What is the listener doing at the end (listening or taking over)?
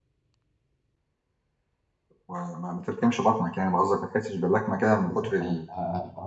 taking over